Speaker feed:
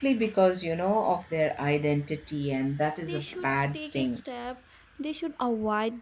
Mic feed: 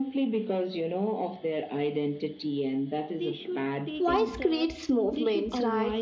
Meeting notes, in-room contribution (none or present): present